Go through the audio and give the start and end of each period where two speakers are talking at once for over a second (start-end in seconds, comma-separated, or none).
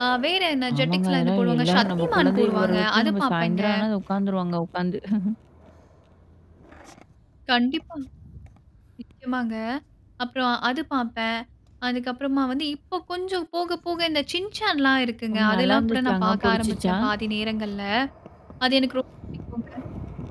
0.8-3.6, 15.3-16.9